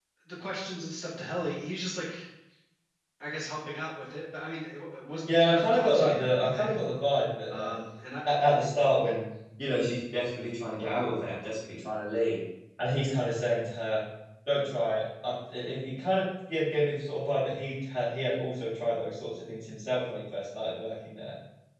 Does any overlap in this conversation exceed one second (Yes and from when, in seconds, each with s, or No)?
Yes, from 5.3 s